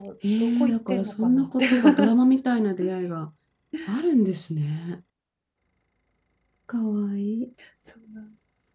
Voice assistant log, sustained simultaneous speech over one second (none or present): present